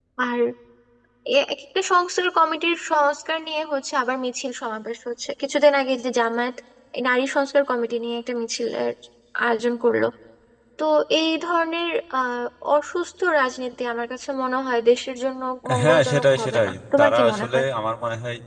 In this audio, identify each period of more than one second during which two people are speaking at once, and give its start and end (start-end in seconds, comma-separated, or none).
15.8-17.6